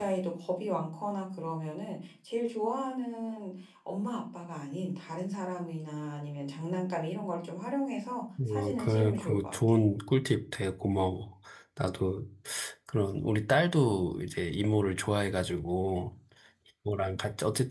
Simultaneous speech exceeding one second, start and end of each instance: 8.5-9.7

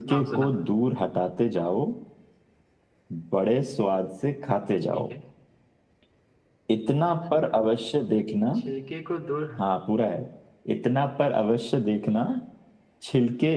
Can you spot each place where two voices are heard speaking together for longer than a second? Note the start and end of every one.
none

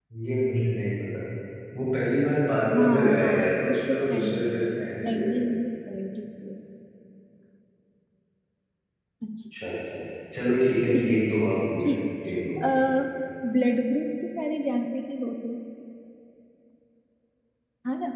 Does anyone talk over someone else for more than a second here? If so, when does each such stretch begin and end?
2.8-5.4

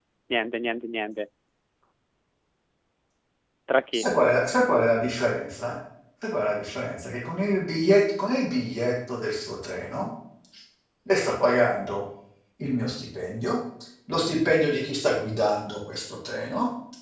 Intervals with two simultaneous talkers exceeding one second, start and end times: none

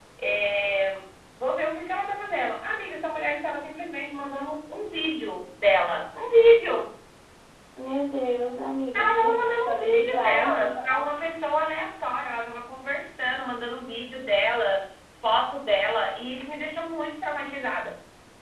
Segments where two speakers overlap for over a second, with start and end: 8.9-10.7

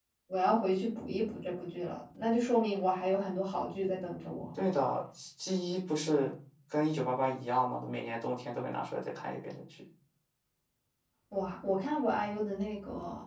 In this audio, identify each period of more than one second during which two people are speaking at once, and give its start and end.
none

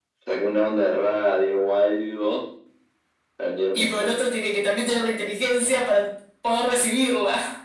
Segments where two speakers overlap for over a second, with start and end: none

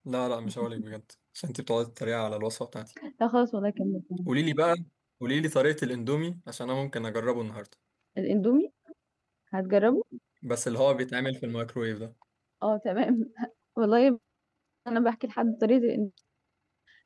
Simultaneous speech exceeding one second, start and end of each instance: none

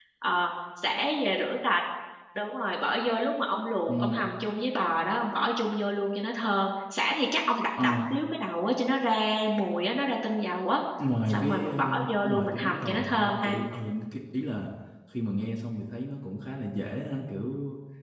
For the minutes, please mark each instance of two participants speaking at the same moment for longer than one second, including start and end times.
11.3-13.6

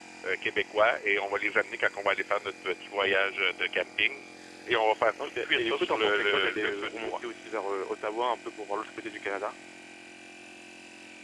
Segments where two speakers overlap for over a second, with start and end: 5.4-7.2

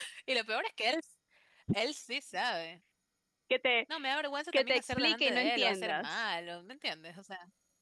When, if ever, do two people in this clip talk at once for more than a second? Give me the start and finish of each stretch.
4.5-6.1

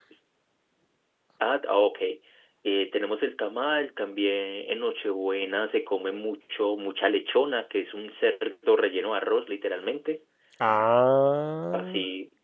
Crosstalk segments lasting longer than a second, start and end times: none

